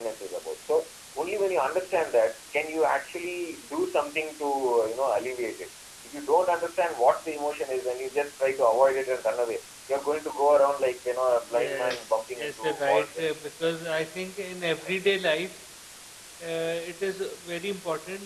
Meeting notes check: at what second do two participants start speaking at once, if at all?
11.5 s

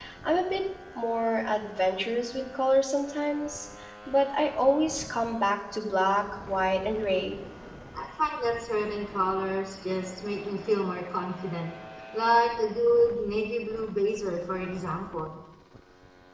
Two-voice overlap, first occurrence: none

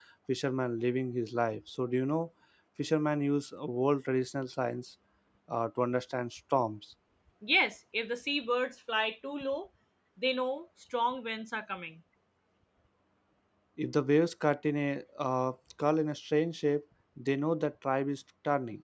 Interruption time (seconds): none

